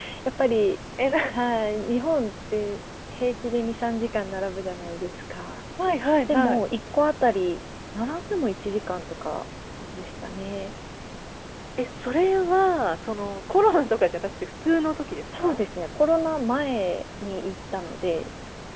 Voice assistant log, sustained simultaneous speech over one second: none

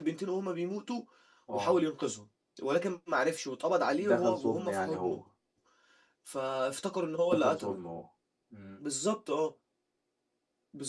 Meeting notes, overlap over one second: present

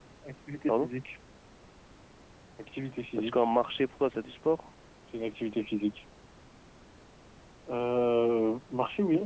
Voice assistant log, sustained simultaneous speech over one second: none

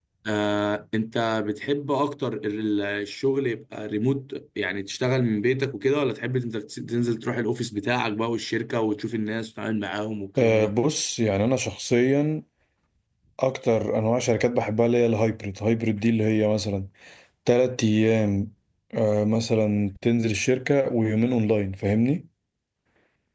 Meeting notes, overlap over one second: none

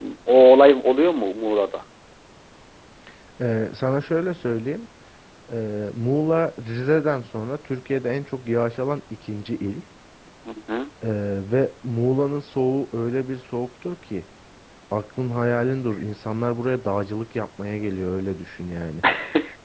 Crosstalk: none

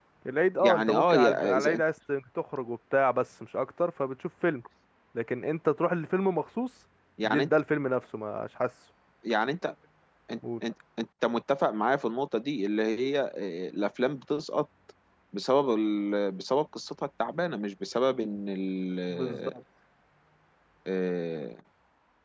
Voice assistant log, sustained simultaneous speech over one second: present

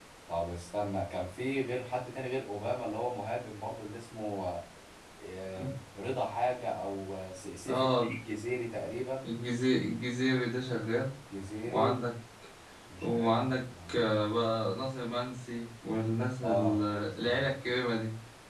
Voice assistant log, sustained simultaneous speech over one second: present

